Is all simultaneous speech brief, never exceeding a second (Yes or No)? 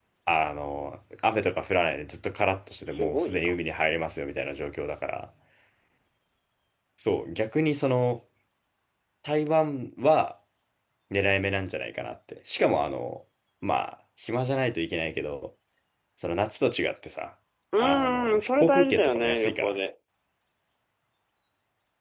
No